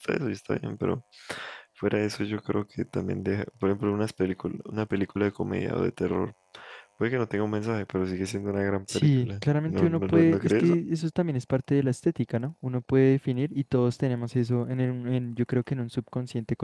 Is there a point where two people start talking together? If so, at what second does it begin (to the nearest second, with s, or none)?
9 s